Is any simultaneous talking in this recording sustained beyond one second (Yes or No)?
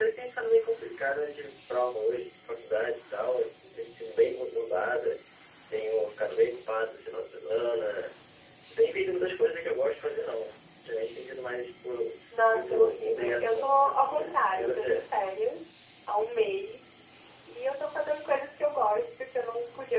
Yes